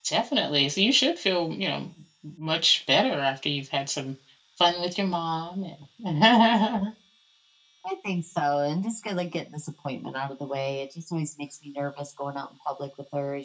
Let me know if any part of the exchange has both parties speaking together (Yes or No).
No